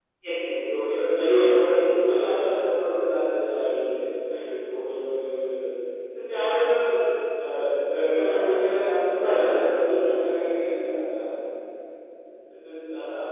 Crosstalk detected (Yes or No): Yes